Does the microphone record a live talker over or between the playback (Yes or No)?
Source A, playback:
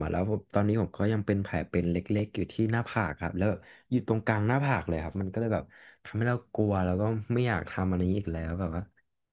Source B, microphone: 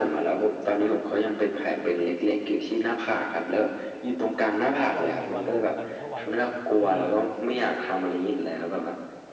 Yes